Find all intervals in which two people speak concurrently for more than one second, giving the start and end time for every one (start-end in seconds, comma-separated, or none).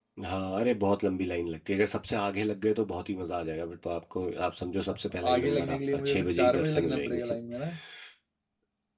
4.9-7.2